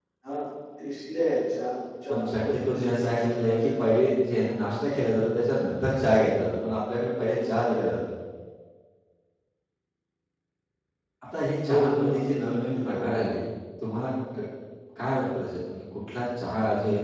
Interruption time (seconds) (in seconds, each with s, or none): 2.1 s